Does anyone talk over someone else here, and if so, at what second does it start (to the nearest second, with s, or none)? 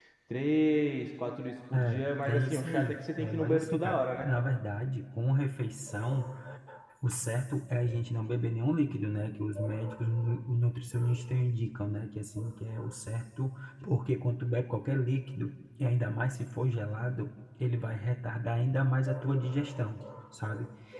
2 s